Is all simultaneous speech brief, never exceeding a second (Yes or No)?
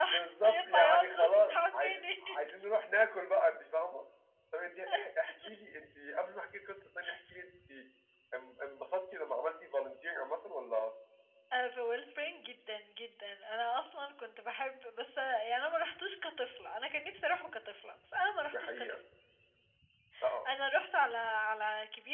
No